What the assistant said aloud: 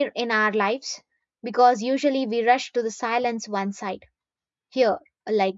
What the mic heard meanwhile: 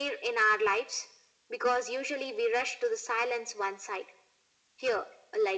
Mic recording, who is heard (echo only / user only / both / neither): echo only